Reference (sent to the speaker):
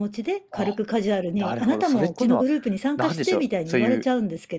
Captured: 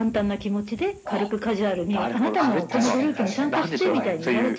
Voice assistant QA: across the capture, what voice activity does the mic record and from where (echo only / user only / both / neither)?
both